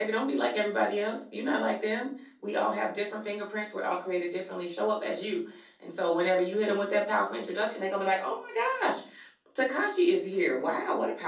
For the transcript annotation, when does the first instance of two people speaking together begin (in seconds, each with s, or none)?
none